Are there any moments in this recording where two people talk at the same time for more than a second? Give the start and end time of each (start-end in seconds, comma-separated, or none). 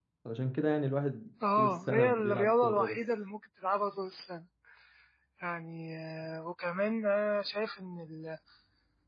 1.6-3.0